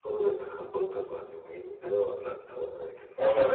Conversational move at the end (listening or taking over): taking over